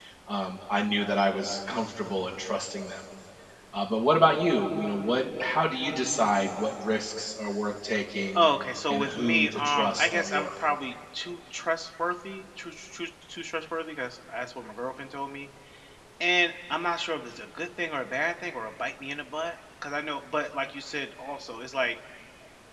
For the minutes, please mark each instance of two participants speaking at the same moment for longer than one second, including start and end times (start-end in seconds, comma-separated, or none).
8.9-10.5